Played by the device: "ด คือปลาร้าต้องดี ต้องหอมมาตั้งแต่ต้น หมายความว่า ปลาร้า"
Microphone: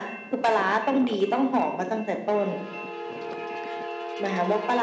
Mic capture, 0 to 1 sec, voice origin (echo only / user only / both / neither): echo only